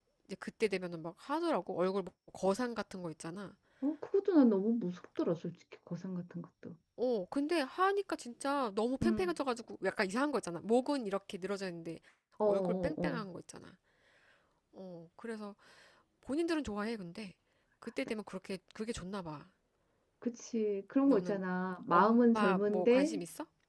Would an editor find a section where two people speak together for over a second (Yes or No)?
Yes